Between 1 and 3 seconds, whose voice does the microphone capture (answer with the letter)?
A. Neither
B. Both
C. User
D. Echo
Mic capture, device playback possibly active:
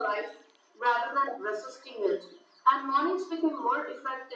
D